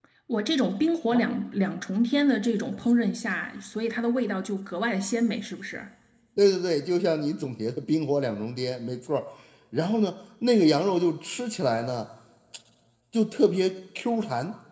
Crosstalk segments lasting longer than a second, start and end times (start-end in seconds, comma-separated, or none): none